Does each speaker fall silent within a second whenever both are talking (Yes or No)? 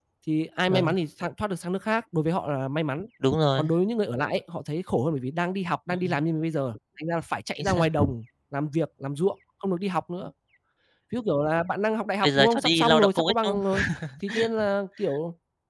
No